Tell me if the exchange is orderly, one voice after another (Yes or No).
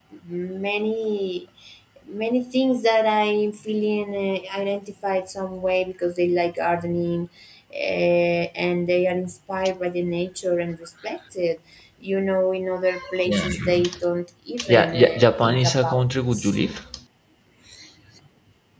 No